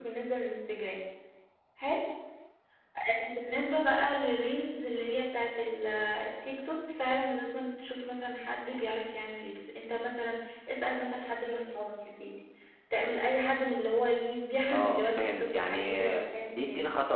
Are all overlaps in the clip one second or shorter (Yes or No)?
No